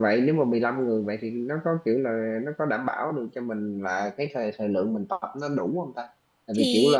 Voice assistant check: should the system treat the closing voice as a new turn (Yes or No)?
No